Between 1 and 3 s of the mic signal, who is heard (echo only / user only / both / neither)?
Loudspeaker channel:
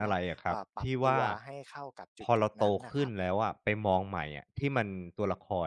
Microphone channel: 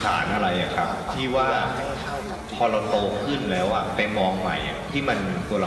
echo only